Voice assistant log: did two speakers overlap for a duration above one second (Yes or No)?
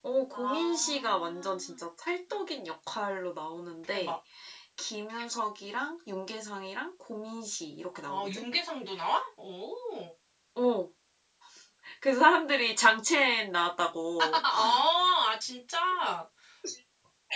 Yes